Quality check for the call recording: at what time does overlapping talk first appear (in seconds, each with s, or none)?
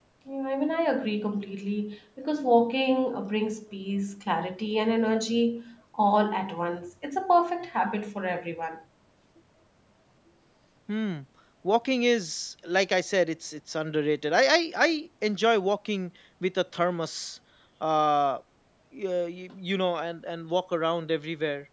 none